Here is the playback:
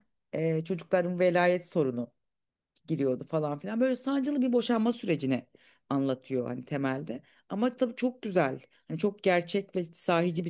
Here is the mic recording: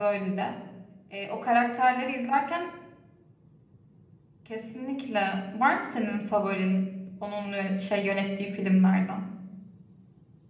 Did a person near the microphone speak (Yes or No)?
Yes